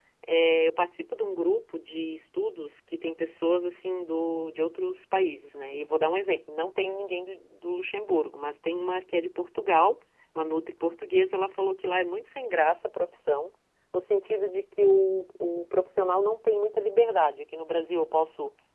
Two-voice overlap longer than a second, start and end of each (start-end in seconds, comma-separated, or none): none